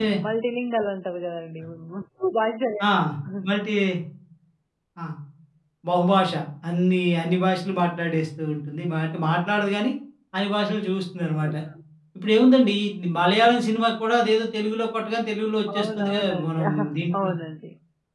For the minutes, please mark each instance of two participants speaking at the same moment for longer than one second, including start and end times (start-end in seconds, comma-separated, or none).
15.8-17.3